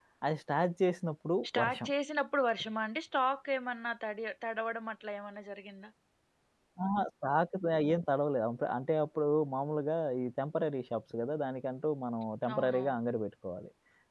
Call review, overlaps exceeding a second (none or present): none